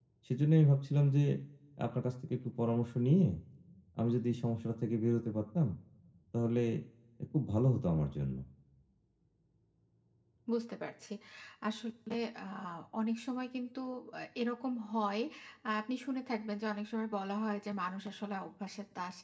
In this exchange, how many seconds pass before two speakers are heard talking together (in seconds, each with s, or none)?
none